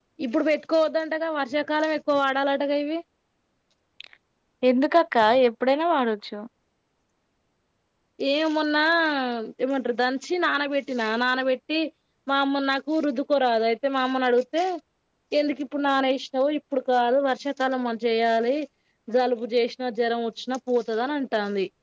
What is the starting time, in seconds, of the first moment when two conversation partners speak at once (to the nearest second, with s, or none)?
none